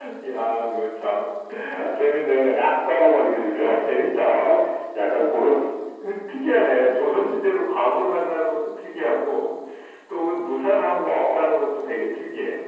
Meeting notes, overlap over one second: none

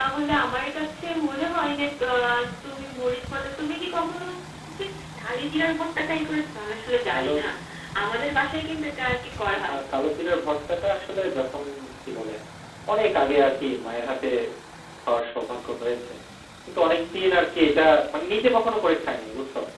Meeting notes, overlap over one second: none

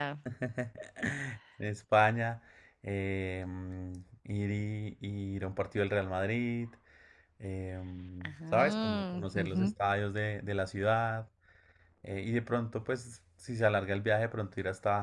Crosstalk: present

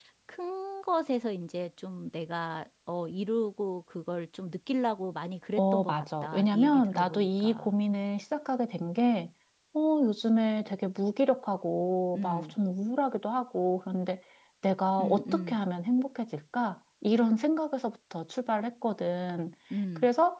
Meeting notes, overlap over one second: present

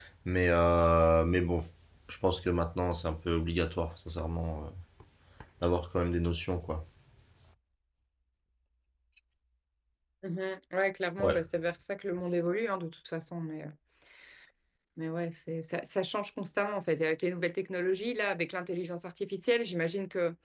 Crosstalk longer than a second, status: none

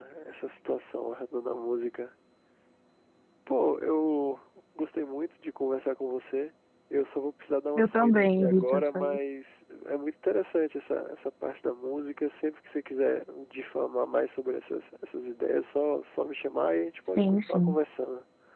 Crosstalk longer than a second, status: present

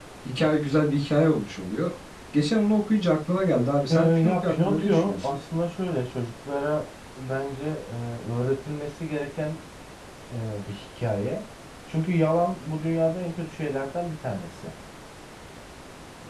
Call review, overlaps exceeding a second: present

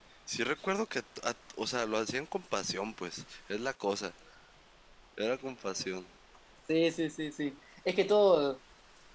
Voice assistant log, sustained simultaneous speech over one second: none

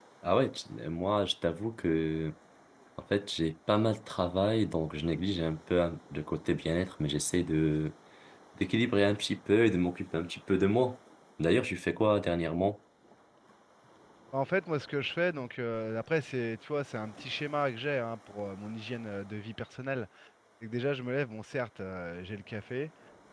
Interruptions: none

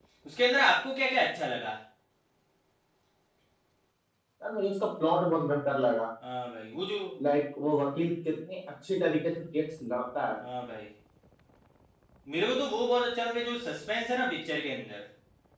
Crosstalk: none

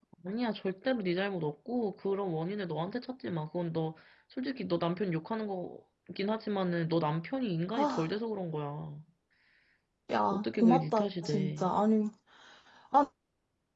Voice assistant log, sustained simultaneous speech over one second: present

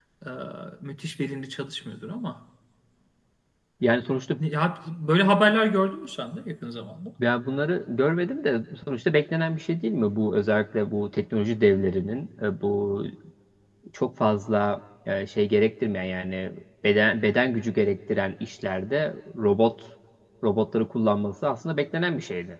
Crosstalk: none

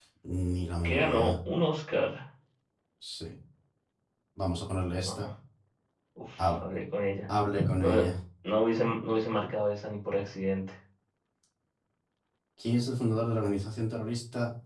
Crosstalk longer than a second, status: none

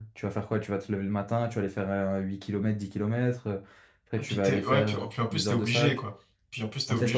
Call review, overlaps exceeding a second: present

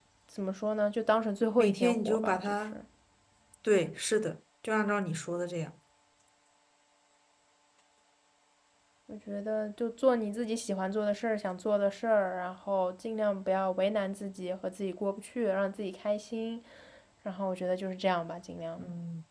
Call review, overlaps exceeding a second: present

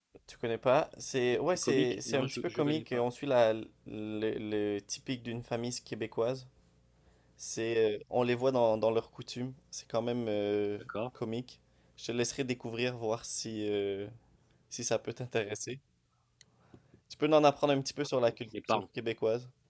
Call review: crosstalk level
present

